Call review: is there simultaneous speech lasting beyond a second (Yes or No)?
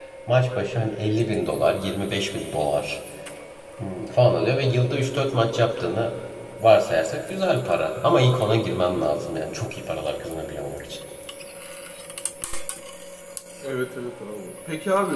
No